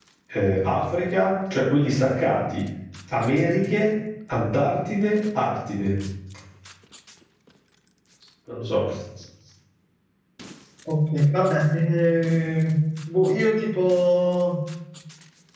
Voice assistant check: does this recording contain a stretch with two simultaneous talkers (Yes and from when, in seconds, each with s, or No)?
No